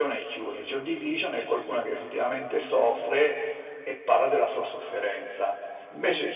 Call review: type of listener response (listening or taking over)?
listening